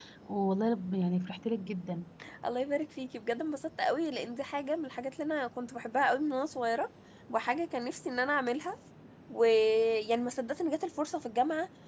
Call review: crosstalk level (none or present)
none